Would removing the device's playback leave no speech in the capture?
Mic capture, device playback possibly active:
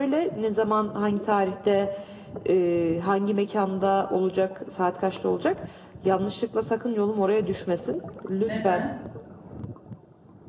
No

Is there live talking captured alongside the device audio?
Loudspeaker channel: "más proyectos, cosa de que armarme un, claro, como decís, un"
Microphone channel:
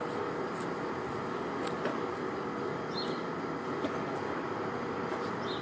No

